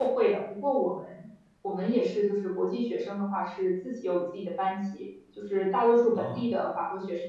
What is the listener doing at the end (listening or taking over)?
listening